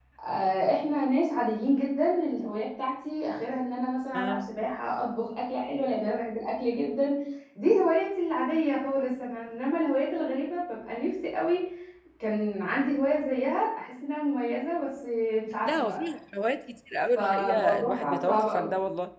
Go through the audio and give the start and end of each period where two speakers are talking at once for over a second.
17.1-18.7

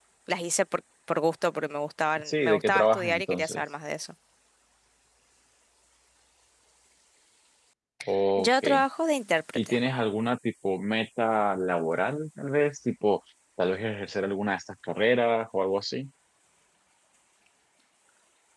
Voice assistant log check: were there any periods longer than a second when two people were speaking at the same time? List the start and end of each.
2.2-3.6

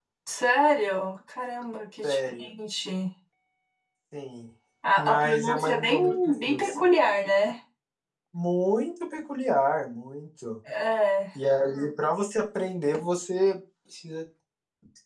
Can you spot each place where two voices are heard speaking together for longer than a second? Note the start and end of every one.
5.0-6.9

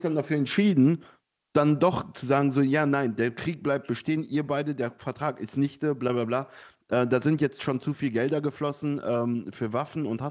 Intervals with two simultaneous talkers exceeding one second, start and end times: none

